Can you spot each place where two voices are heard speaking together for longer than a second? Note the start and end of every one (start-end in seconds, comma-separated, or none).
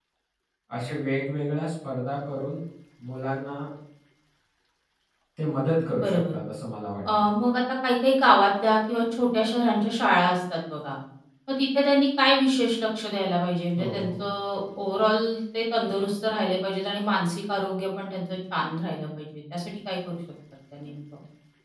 none